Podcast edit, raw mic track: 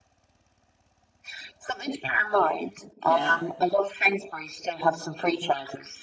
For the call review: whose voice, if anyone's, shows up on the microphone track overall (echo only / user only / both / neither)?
both